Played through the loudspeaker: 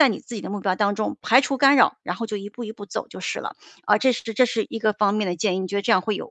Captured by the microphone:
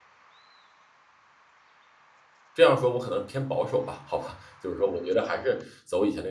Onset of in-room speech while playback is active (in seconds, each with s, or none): 2.5 s